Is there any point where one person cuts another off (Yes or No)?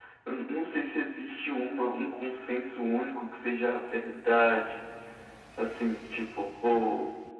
No